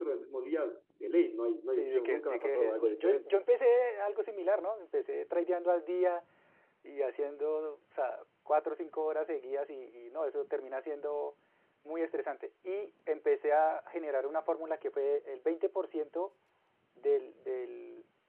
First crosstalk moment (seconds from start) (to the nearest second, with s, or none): 2 s